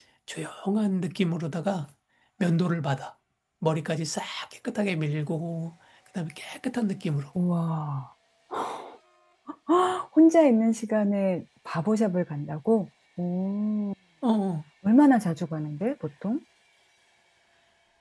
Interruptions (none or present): none